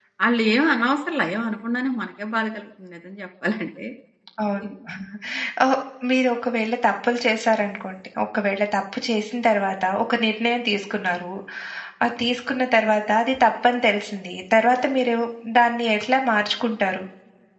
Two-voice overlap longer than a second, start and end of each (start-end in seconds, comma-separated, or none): none